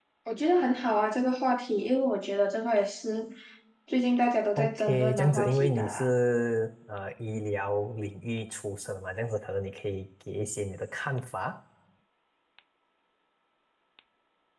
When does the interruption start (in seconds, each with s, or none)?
4.6 s